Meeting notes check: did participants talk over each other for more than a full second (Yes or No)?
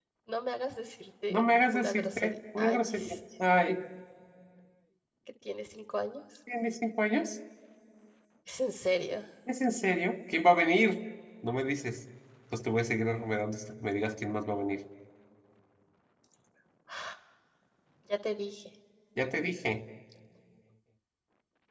Yes